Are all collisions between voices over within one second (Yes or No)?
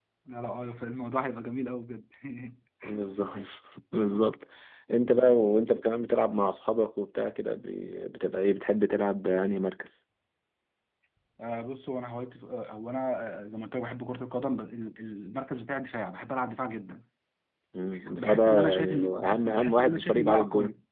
No